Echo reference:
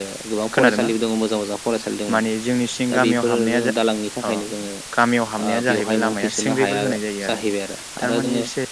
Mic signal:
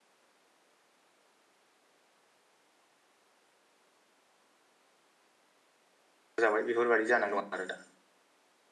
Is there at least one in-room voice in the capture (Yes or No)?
Yes